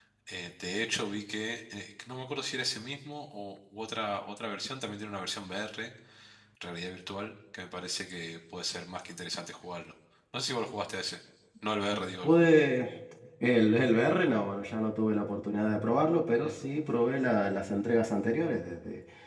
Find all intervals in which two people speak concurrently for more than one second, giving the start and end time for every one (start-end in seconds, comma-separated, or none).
none